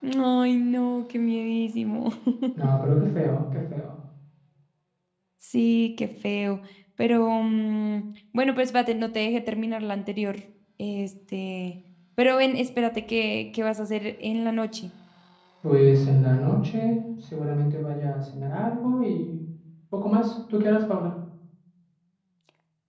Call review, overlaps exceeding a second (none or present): none